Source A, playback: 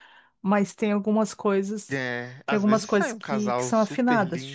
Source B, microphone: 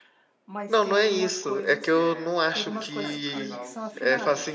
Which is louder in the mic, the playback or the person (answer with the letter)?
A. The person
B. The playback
A